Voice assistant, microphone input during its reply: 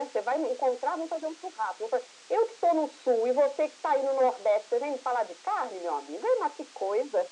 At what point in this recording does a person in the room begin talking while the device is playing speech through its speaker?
none

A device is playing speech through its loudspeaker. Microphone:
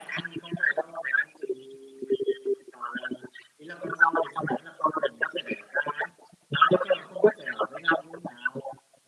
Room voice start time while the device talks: none

